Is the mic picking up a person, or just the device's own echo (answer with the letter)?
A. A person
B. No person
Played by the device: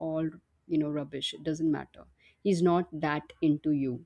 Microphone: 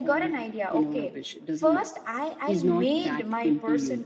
A